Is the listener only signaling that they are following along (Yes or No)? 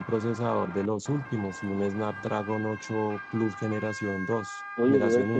No